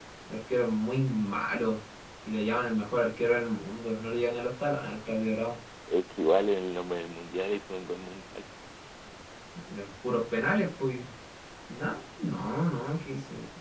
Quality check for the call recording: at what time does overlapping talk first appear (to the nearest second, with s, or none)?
none